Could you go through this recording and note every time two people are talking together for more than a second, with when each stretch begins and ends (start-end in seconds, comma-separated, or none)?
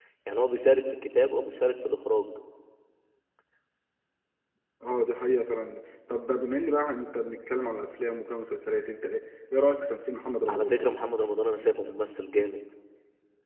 none